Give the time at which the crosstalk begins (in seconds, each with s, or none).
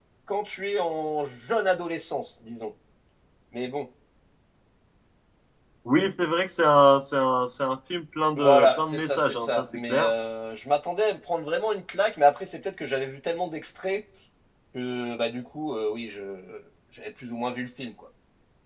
8.4 s